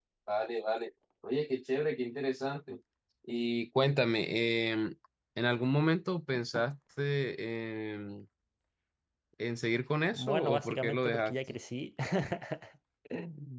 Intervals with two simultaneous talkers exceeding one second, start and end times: 10.1-11.6

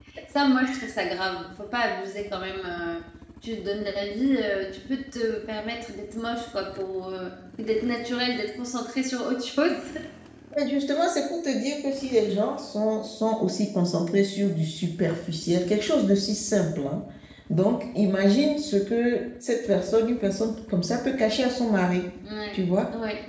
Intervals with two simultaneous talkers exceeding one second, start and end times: none

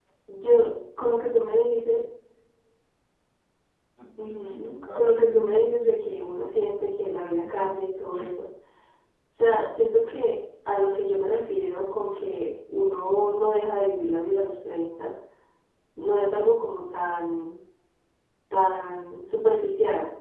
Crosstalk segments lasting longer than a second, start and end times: 4.2-6.4

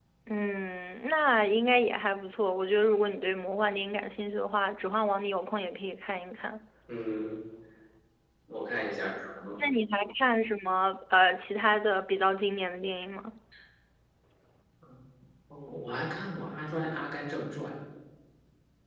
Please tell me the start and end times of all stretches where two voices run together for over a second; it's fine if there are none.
none

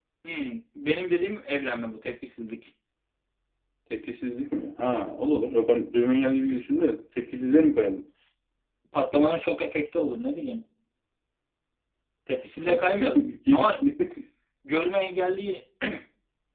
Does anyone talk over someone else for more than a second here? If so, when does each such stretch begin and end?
12.6-13.9

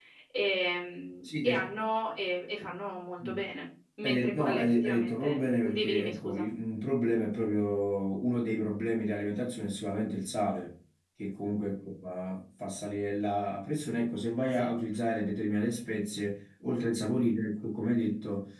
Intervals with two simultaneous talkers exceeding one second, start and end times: 4.0-6.5

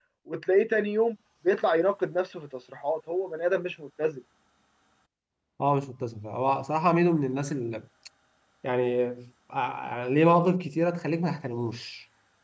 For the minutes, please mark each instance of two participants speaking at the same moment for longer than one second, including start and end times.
none

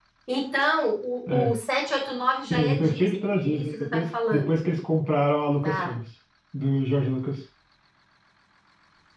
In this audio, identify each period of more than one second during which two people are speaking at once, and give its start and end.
2.5-4.7

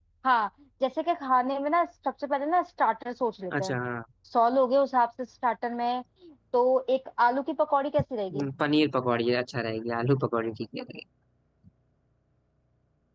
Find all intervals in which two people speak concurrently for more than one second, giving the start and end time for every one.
none

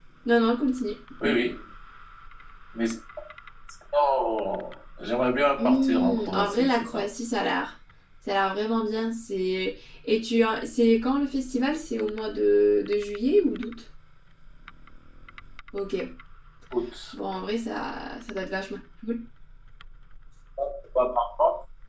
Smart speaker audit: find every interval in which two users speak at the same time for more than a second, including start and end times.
5.6-7.0

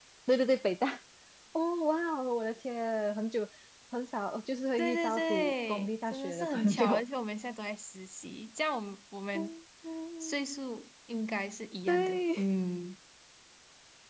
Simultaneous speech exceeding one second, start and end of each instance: 4.8-7.0

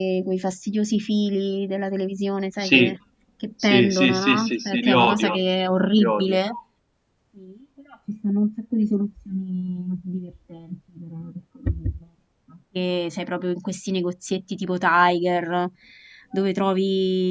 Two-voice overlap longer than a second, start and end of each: 3.6-5.4

